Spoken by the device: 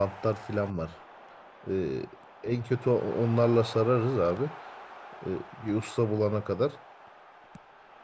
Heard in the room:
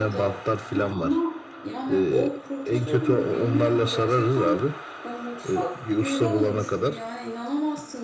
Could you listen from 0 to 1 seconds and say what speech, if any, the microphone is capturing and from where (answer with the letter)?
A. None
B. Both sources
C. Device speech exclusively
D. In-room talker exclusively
B